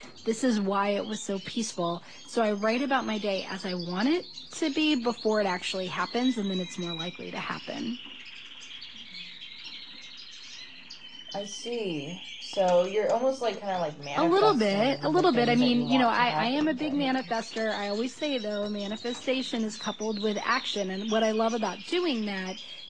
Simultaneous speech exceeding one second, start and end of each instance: 14.2-17.1

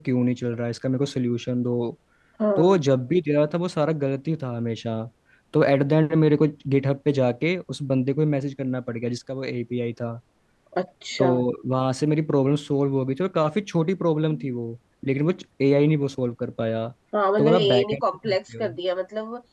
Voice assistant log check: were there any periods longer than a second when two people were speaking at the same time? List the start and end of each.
17.4-18.7

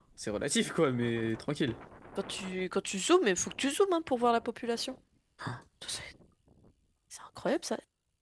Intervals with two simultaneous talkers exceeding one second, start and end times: none

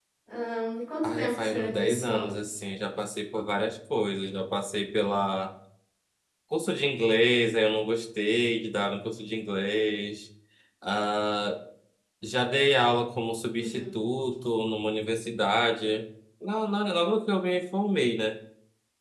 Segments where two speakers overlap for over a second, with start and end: 1.0-2.4

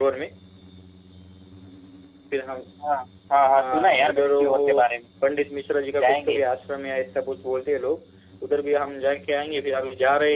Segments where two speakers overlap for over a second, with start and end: 3.5-4.8

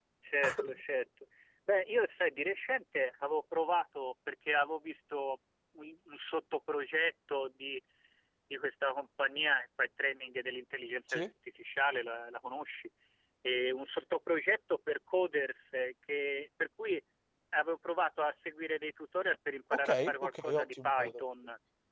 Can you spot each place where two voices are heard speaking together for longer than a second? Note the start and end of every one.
19.7-21.2

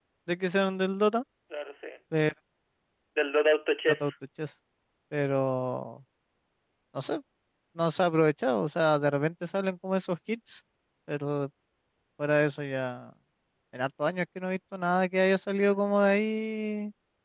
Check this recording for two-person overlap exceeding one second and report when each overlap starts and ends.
none

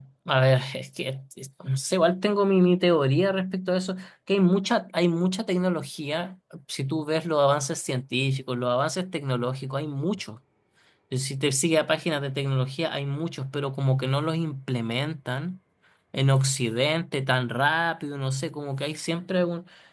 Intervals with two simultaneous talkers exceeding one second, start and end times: none

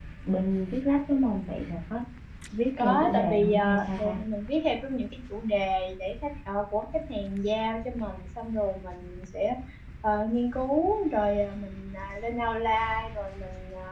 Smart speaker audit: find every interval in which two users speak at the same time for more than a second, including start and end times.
2.8-4.2

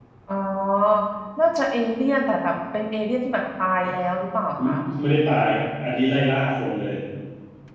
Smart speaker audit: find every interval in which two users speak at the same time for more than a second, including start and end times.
none

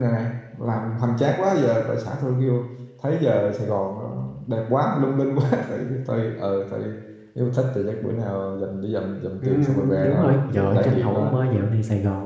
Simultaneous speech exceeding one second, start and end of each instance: 9.4-11.3

